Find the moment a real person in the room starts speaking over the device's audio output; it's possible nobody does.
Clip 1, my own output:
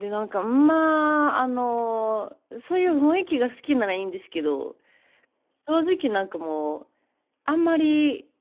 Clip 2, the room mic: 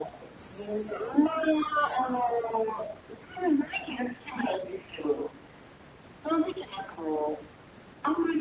none

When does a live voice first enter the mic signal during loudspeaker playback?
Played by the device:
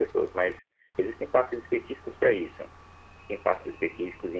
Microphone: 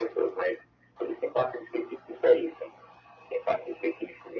none

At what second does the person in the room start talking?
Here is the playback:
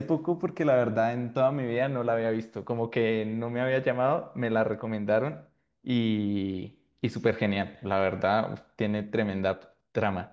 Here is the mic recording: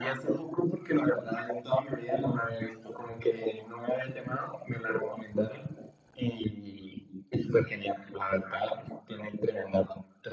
none

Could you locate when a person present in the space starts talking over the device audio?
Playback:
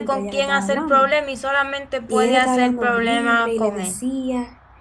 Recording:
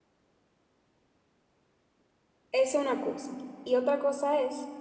2.5 s

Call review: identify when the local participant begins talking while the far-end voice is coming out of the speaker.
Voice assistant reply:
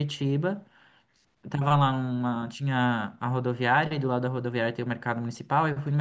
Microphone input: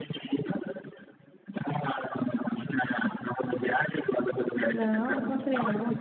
4.7 s

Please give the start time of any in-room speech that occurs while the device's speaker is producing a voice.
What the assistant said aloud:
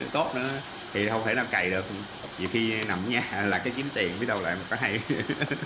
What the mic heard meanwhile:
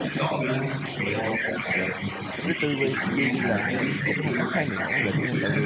2.4 s

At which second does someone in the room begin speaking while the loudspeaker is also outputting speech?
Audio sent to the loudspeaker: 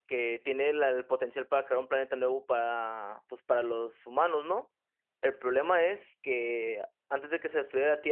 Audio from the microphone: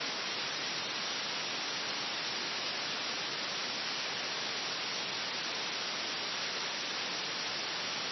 none

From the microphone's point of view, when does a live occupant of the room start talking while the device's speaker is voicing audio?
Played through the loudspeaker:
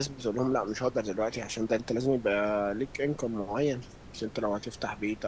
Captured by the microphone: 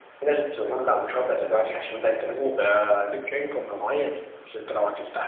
none

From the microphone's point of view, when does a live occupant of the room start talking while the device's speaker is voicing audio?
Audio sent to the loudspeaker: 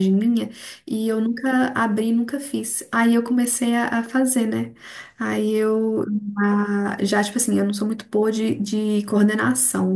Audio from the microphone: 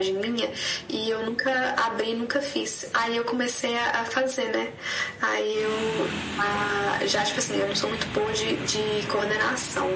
none

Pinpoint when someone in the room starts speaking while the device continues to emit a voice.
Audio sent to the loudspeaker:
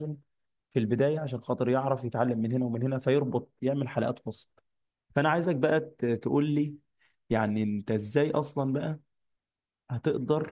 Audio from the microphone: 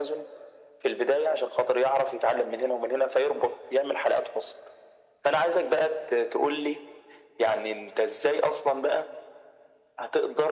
none

